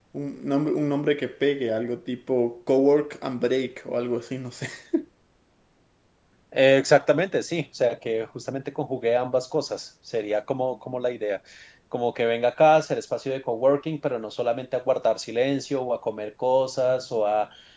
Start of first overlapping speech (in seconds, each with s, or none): none